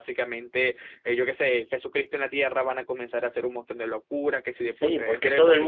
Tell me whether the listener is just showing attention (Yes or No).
No